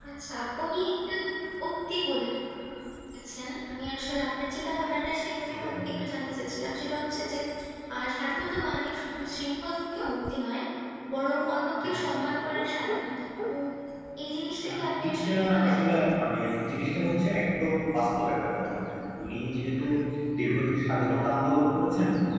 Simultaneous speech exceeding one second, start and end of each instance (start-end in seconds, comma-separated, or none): 14.7-16.1